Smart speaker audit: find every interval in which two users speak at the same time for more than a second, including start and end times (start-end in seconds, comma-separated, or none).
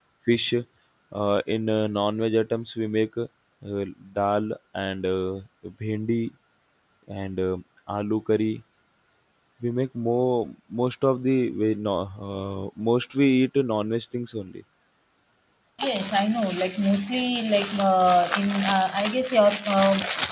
none